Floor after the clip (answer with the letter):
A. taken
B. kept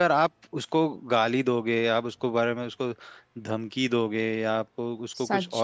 B